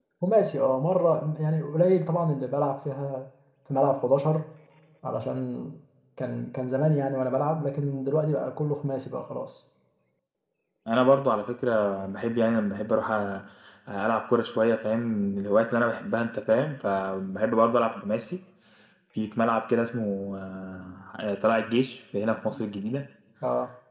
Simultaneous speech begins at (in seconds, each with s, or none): none